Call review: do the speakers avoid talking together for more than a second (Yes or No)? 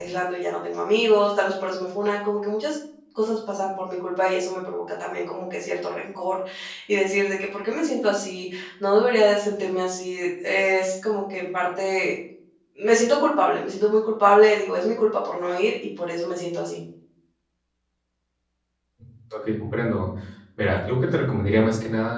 Yes